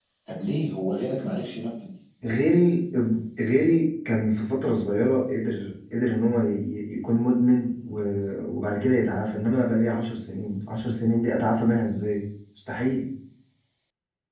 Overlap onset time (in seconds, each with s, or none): none